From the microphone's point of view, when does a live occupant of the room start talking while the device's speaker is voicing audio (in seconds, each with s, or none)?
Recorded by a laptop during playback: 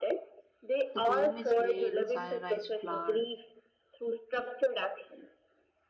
0.9 s